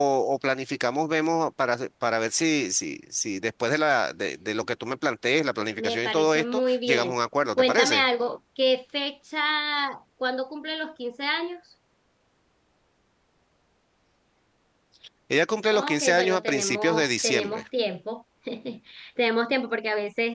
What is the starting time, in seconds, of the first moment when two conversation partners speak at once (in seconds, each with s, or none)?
5.8 s